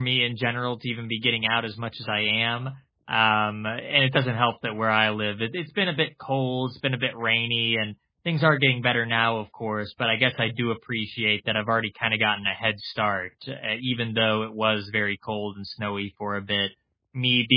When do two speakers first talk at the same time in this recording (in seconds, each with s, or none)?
none